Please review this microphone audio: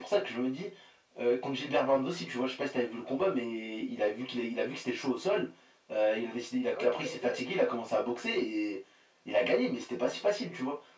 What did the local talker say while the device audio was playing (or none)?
Ah ouais, t'étais en direct?